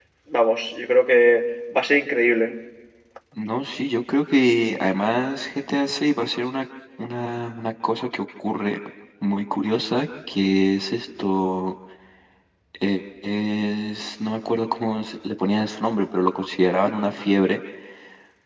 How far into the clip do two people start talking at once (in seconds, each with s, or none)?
none